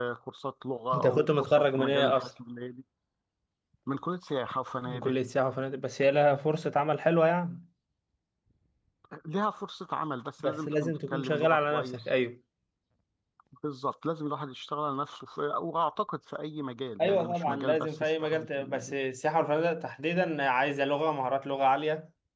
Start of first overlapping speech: 1 s

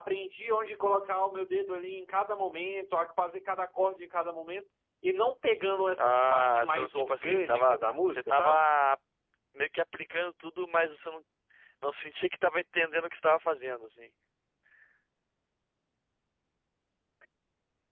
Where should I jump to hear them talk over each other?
6 s

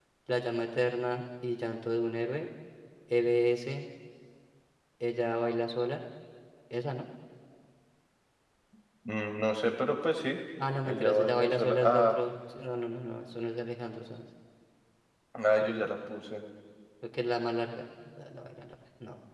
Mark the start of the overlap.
11 s

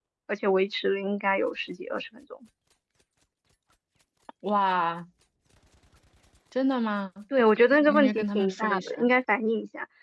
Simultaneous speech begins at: 8 s

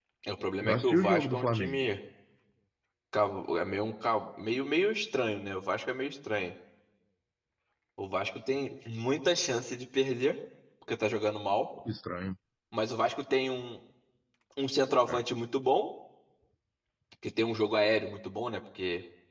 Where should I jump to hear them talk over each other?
1 s

